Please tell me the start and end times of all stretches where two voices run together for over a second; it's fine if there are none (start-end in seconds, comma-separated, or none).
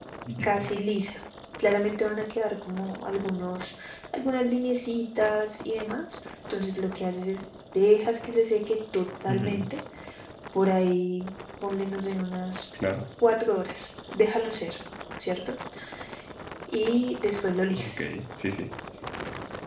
none